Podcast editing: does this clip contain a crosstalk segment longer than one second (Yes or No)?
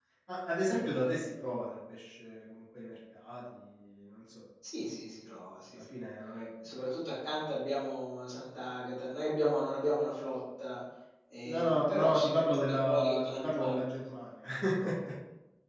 Yes